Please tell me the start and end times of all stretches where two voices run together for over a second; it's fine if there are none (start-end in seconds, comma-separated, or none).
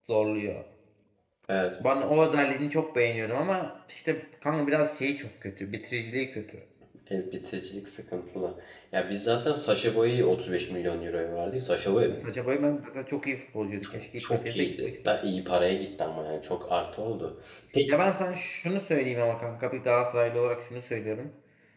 13.8-15.1